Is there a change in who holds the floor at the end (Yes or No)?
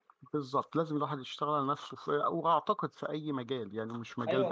Yes